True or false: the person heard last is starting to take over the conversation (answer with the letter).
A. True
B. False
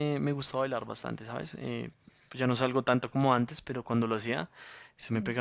B